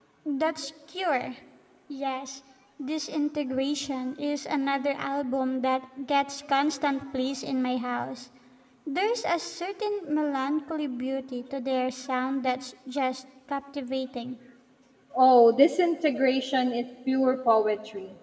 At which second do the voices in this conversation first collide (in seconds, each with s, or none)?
none